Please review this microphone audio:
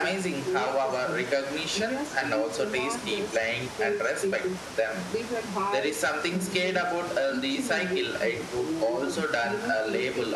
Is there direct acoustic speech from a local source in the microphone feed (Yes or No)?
Yes